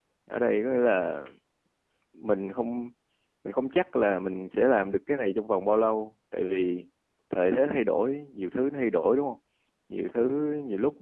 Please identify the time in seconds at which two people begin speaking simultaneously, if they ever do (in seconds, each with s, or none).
none